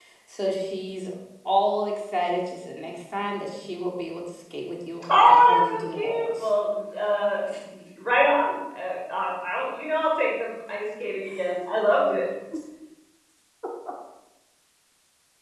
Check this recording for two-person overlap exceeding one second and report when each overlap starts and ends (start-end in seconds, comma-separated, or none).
5.2-6.5